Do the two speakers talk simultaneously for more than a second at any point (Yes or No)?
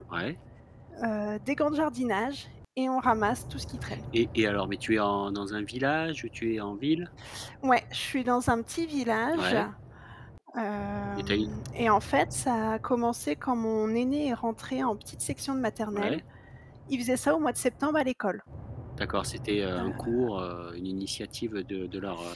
No